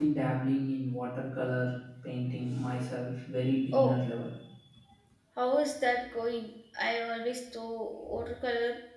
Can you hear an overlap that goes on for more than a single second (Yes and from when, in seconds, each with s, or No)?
No